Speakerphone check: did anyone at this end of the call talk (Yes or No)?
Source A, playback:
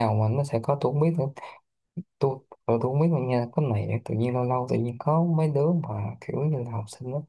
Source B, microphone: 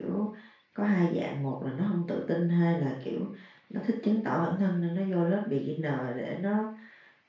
Yes